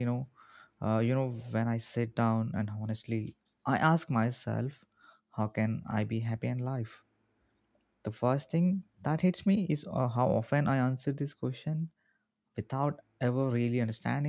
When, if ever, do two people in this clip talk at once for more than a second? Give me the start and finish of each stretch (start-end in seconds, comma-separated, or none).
none